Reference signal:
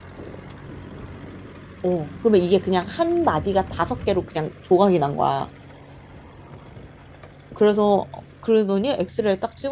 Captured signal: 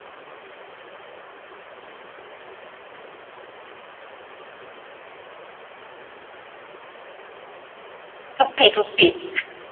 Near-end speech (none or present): present